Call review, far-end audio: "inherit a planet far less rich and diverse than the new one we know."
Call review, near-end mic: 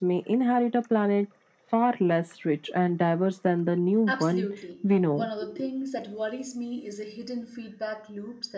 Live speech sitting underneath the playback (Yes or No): Yes